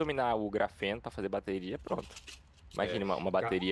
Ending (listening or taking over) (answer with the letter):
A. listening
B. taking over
A